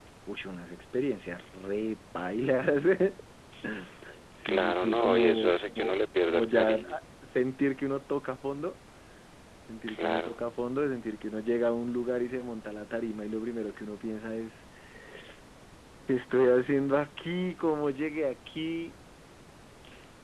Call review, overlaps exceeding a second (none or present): present